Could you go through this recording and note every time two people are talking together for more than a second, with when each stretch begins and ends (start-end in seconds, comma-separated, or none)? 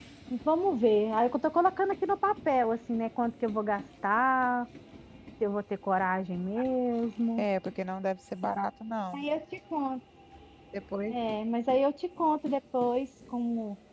none